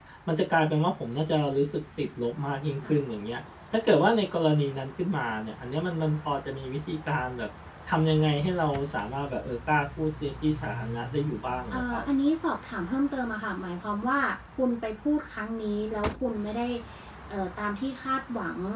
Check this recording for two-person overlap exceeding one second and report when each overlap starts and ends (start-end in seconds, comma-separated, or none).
none